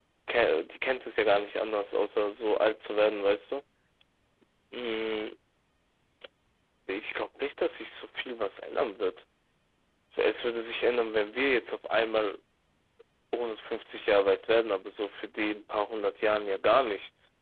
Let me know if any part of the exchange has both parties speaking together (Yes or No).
No